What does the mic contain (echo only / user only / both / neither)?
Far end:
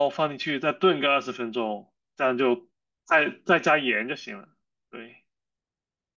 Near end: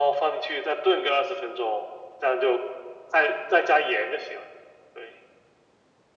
echo only